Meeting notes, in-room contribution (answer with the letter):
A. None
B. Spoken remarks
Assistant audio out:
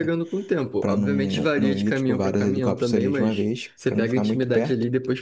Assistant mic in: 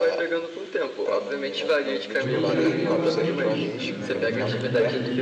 B